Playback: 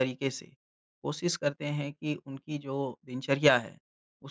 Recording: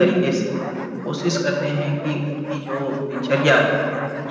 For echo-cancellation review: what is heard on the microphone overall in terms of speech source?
echo only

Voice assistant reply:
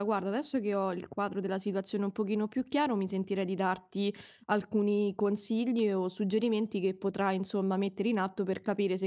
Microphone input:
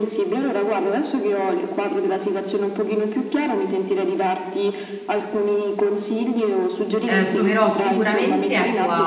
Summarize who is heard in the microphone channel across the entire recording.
both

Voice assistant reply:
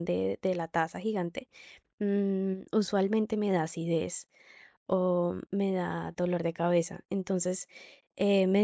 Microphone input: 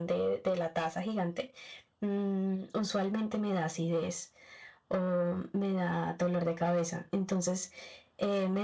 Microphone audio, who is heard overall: echo only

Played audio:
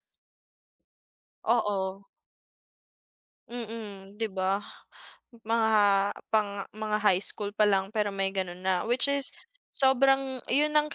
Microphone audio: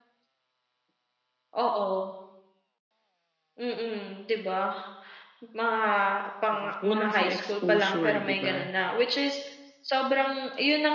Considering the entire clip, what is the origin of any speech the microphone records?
both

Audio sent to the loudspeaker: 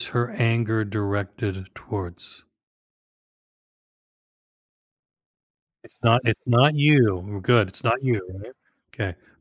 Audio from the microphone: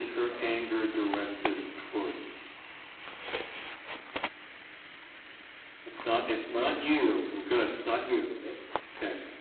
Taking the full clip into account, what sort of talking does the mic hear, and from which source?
echo only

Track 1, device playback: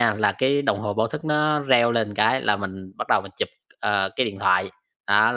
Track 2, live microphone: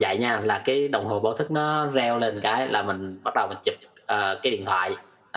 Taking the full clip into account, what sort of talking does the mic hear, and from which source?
echo only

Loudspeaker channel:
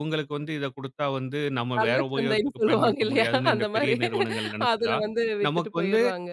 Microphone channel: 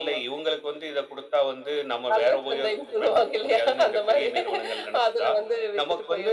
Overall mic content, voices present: echo only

